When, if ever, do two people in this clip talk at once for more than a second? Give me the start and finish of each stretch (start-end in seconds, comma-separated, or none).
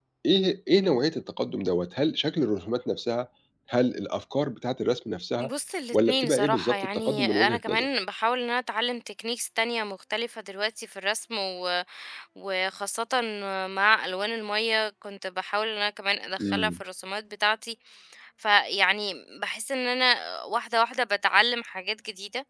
5.9-7.9